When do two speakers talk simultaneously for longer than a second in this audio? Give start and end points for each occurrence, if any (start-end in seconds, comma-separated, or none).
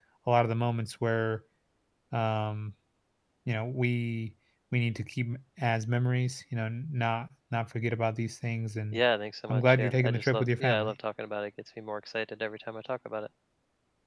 9.5-10.9